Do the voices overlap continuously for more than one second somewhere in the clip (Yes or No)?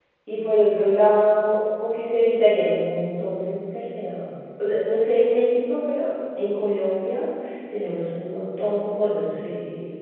No